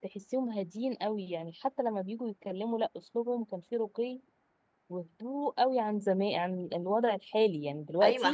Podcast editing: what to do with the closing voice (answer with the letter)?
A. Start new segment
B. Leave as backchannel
A